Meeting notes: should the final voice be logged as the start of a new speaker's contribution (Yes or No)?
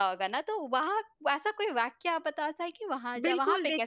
Yes